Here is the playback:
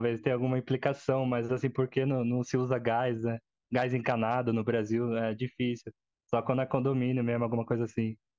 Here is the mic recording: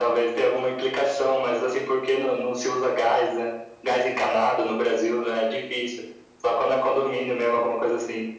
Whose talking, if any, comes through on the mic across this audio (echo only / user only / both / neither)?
echo only